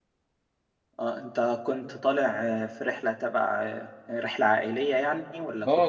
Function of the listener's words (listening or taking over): taking over